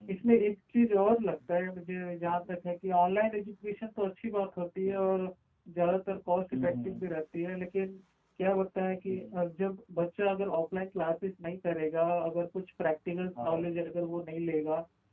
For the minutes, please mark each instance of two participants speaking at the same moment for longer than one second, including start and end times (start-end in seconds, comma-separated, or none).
none